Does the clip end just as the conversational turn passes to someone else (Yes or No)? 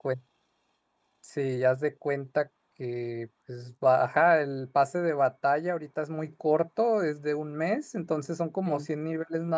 No